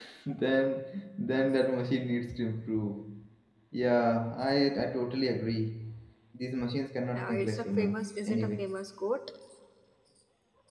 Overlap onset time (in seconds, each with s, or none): 7.2 s